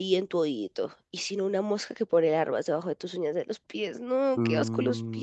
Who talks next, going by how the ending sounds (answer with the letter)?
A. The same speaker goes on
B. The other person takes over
B